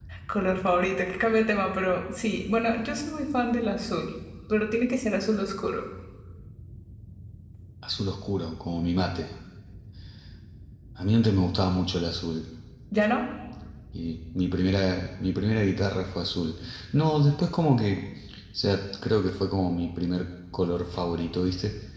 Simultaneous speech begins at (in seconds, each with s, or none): none